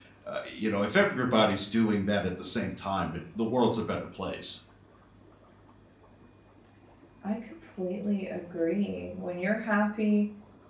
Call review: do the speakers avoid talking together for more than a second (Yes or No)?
Yes